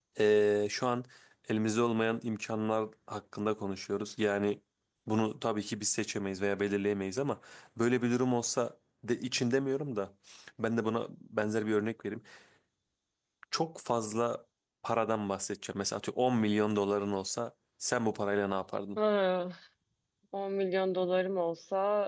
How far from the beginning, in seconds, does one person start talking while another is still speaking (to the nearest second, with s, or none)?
none